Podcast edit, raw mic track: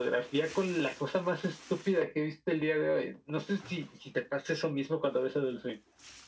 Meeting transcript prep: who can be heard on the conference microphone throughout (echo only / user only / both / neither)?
echo only